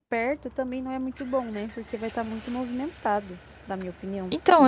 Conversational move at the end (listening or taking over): taking over